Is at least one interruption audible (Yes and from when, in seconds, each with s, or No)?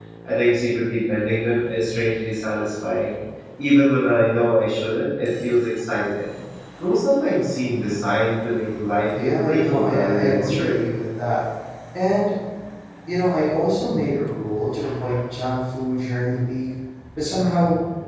Yes, from 9.1 s